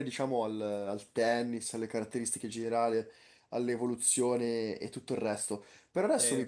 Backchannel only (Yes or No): Yes